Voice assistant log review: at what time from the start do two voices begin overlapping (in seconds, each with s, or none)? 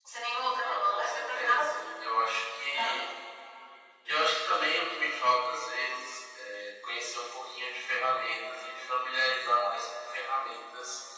0.6 s